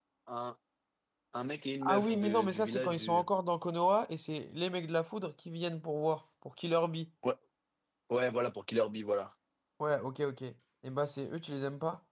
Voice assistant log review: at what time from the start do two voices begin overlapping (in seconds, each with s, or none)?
1.8 s